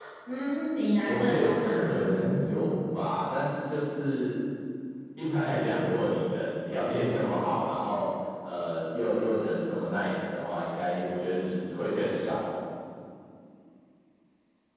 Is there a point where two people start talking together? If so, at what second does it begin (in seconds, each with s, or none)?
1.1 s